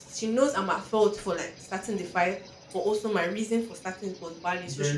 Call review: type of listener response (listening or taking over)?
listening